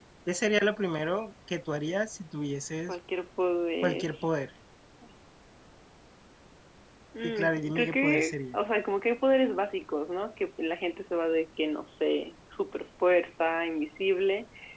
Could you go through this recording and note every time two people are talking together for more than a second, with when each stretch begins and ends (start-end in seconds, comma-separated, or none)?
7.2-8.6